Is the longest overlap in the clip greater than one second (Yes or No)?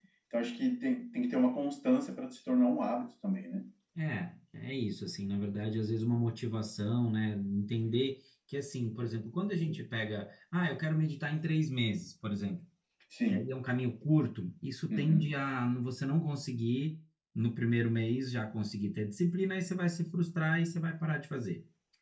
No